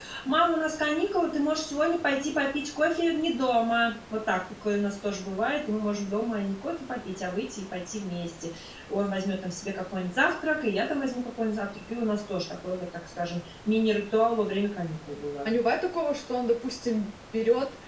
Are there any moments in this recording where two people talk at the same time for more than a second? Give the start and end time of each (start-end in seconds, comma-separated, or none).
none